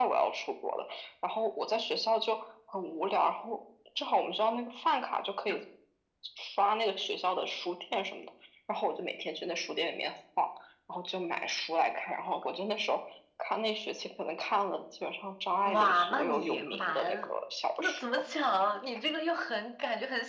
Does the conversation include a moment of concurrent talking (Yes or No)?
Yes